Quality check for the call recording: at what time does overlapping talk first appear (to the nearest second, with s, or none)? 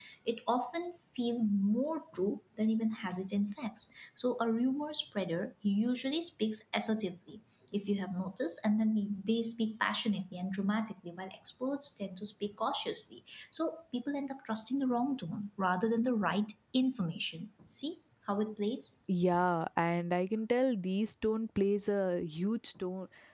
none